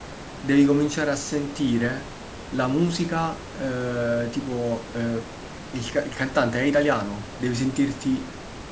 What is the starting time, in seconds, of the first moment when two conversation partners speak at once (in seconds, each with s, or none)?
none